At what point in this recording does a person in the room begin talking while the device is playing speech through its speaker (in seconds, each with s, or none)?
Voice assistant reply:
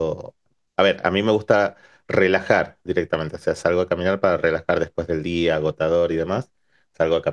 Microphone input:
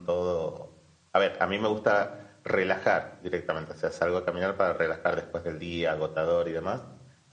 none